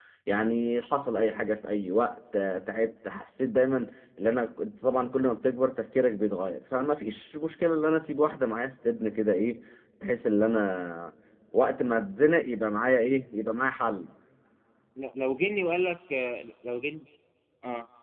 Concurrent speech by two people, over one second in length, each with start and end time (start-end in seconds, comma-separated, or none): none